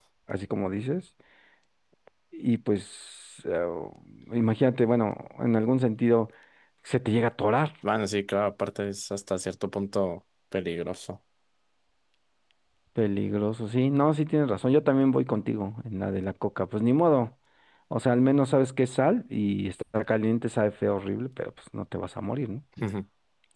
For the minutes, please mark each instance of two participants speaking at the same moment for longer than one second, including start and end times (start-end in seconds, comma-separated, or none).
none